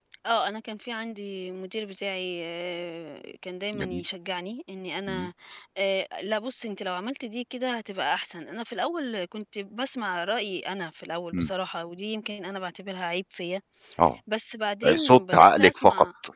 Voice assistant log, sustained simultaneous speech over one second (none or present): present